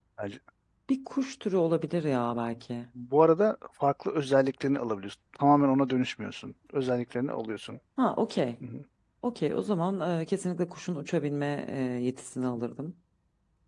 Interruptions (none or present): none